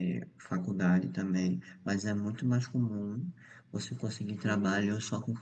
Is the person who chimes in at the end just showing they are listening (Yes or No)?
Yes